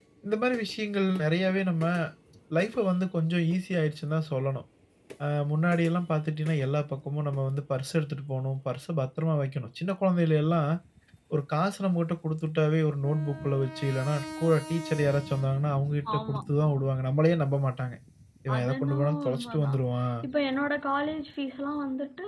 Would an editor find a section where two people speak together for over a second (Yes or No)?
Yes